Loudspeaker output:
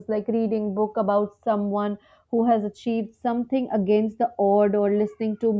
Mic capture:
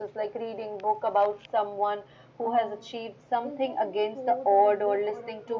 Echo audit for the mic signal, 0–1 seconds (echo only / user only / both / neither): echo only